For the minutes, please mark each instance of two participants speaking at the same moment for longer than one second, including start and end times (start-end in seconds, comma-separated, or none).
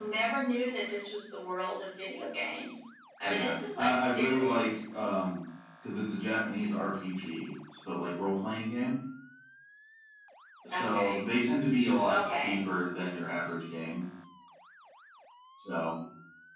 3.2-4.7